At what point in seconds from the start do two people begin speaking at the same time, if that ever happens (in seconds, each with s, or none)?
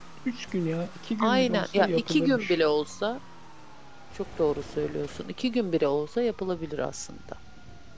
1.2 s